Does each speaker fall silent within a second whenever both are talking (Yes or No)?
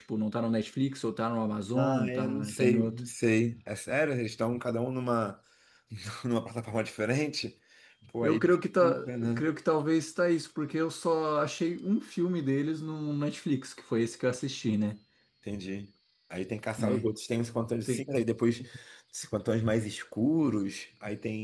No